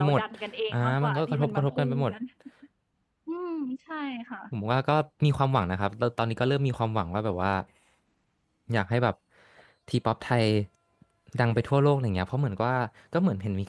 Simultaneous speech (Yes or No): Yes